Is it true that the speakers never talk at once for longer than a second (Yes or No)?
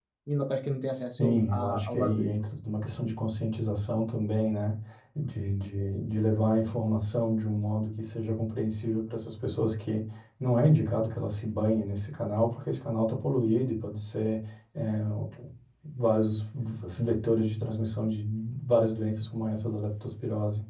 No